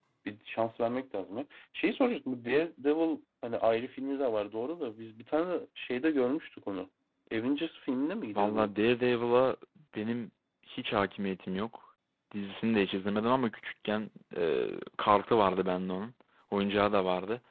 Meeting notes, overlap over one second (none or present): none